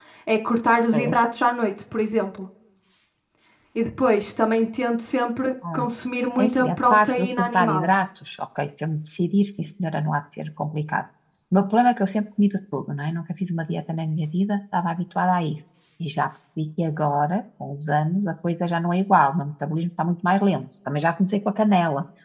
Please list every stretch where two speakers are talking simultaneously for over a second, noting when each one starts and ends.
6.4-7.9

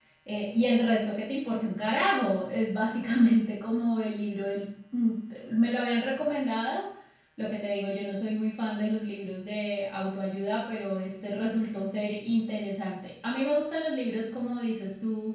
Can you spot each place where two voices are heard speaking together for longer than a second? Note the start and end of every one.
none

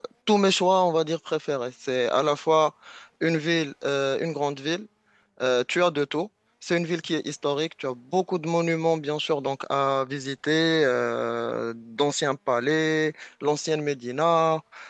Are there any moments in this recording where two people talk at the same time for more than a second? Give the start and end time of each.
none

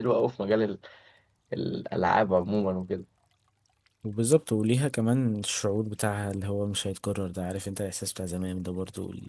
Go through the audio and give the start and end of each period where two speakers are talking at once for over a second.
none

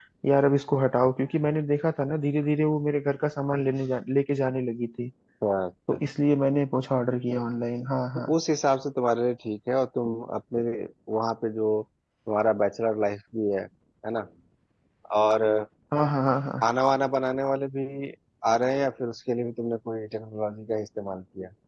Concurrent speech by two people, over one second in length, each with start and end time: none

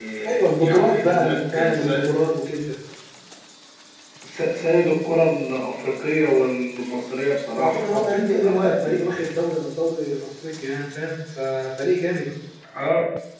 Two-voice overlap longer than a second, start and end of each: 0.6-1.9, 7.5-9.0

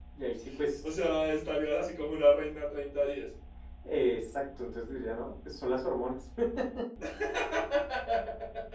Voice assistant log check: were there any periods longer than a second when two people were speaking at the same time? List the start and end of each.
none

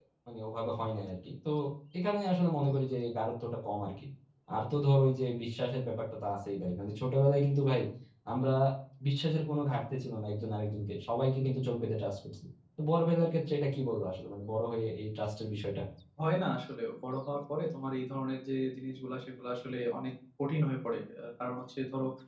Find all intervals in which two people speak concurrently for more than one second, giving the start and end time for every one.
none

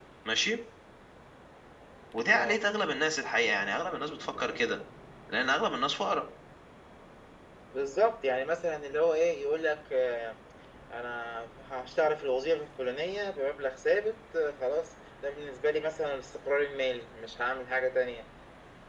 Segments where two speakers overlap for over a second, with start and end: none

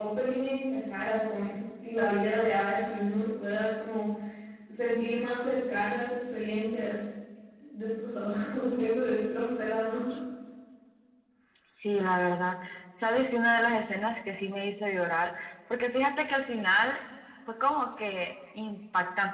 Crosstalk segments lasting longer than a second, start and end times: none

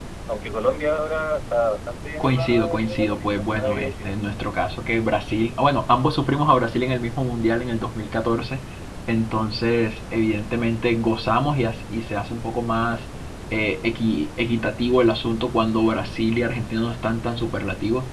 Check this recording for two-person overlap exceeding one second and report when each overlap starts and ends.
2.2-4.1

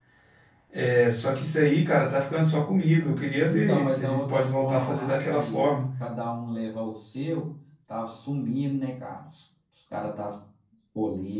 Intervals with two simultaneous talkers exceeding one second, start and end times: 3.5-5.7

